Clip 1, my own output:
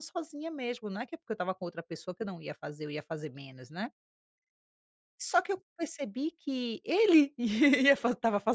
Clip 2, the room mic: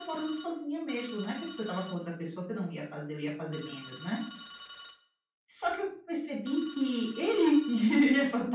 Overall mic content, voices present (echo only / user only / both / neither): echo only